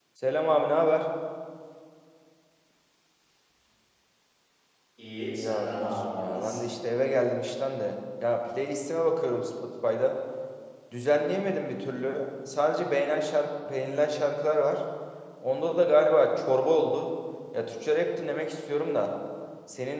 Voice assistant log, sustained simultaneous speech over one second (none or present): present